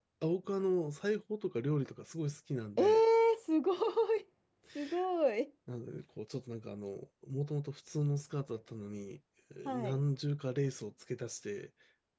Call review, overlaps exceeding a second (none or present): none